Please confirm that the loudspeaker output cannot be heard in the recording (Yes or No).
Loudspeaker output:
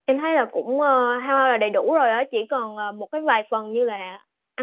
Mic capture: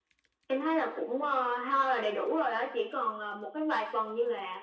No